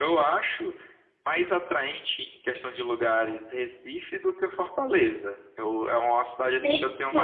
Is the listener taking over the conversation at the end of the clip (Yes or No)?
No